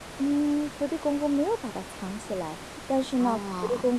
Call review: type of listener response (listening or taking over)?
listening